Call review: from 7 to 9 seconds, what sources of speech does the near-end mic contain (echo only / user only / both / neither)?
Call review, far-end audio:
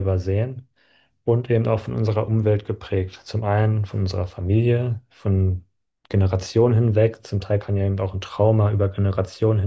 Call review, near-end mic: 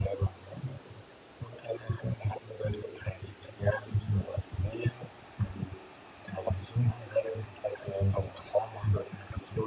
echo only